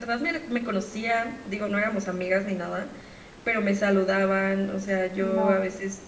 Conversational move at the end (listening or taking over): listening